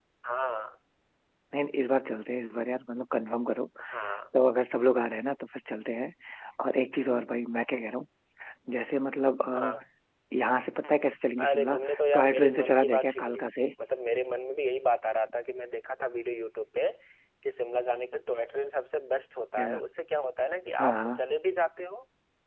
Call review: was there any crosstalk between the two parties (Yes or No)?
Yes